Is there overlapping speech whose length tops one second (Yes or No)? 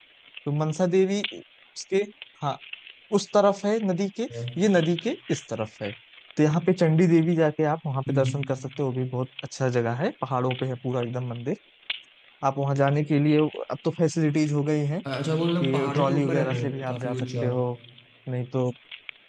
Yes